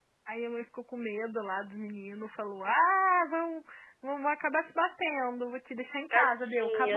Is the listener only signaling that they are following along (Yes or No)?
No